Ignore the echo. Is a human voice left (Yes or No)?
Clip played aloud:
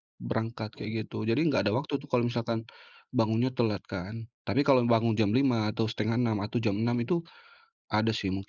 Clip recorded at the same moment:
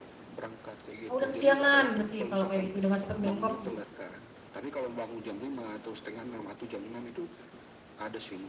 Yes